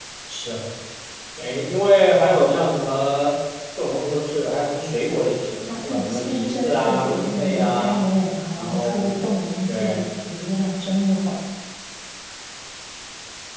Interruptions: present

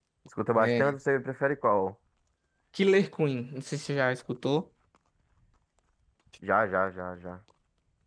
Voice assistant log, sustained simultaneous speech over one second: none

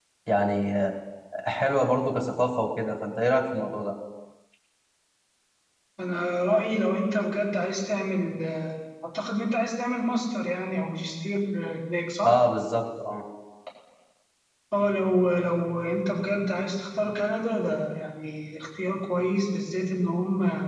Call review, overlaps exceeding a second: none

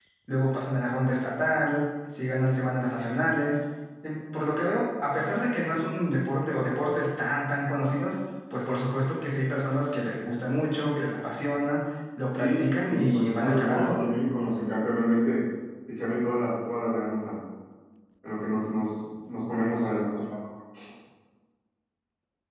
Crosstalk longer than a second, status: present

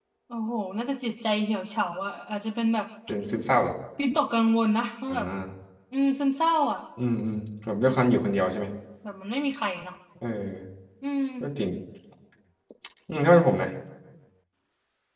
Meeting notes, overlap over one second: none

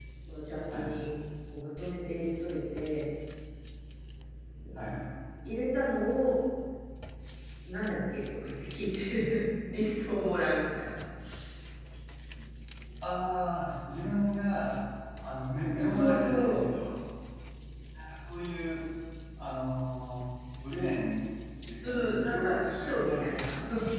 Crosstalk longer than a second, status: present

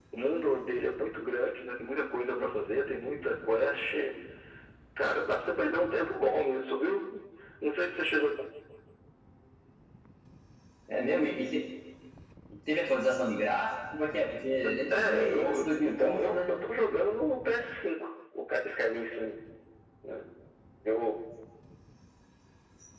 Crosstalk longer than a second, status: present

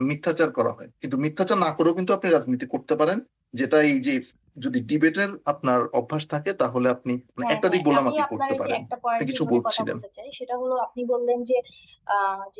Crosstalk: present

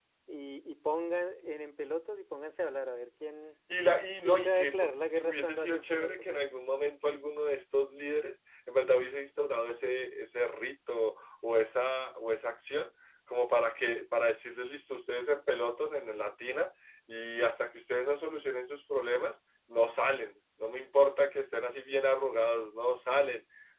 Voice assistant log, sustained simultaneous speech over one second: present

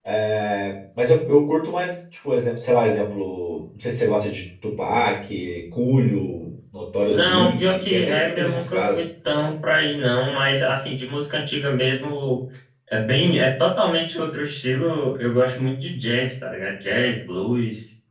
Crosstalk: present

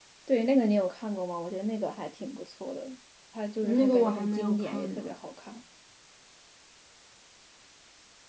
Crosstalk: present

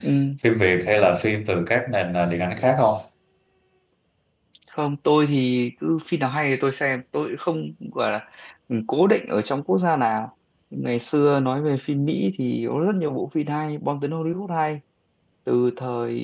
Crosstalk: none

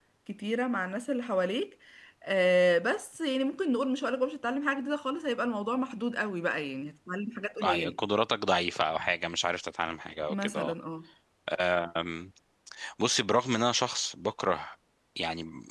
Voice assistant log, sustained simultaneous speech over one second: none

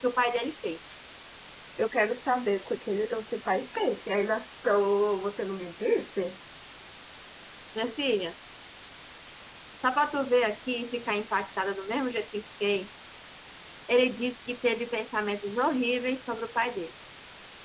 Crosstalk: none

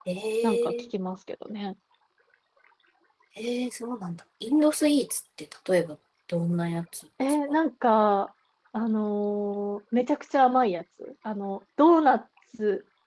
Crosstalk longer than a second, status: none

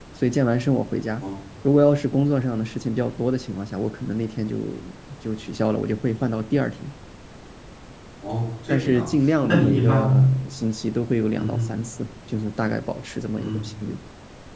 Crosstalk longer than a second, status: present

